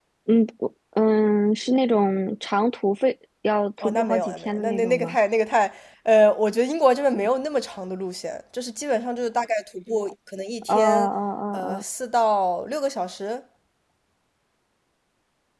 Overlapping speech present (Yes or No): Yes